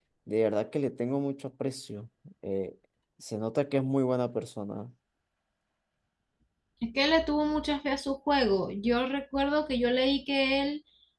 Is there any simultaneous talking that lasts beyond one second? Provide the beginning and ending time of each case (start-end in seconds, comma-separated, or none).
none